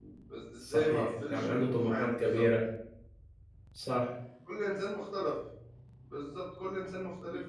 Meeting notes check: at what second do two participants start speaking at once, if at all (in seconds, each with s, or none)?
0.6 s